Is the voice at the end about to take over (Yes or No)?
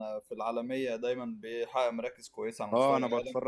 Yes